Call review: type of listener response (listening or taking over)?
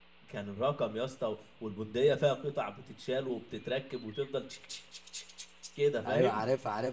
taking over